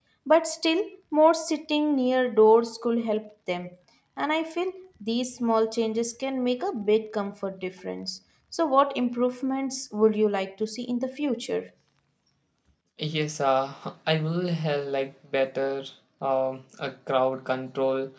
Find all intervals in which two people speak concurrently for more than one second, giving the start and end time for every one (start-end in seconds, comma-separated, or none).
none